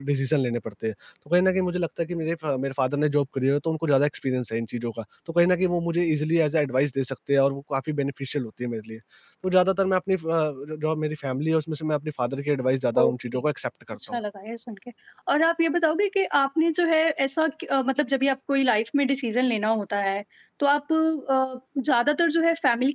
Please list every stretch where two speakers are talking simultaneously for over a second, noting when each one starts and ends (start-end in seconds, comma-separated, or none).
none